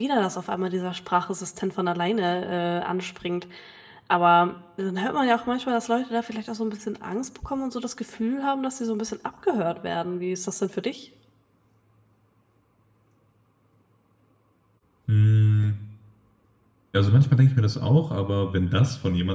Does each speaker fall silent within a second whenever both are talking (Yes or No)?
Yes